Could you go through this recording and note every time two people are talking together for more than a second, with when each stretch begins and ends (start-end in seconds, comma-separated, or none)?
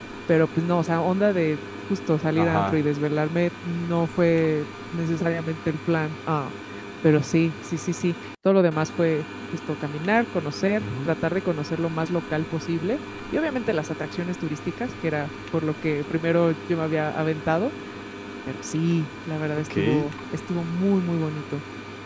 none